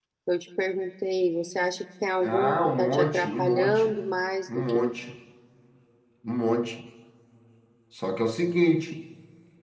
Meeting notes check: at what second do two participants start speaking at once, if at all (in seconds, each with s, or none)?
2.2 s